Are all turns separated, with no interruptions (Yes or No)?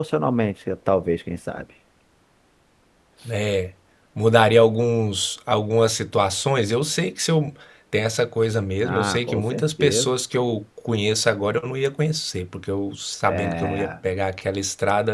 No